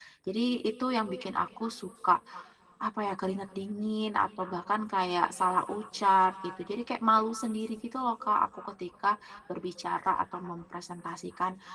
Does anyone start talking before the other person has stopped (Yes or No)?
No